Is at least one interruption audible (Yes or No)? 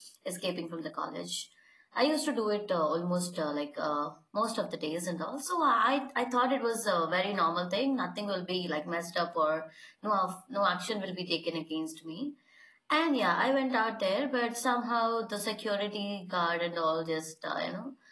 No